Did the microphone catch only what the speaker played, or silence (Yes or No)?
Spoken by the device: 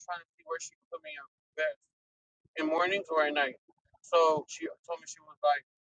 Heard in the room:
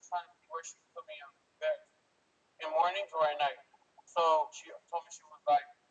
Yes